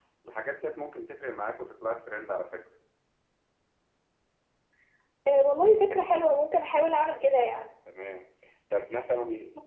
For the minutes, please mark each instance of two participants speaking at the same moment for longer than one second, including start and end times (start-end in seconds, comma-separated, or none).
none